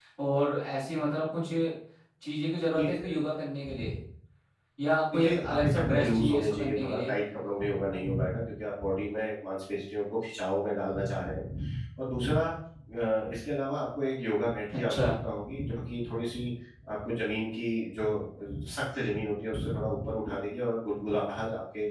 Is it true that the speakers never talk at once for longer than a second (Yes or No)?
No